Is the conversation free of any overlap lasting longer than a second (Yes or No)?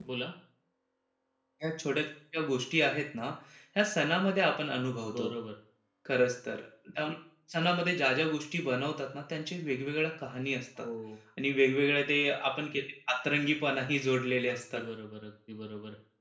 Yes